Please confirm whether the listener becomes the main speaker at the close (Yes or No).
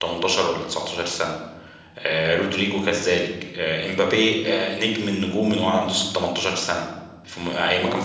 Yes